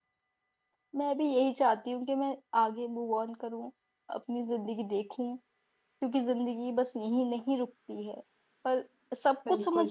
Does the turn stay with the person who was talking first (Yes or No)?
No